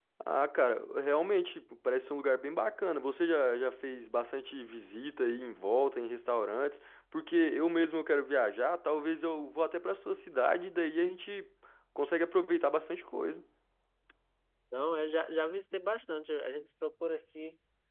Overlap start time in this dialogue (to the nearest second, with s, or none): none